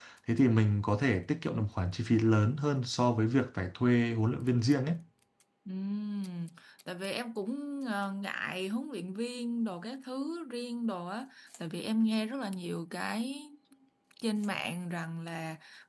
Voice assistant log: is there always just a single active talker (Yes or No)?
Yes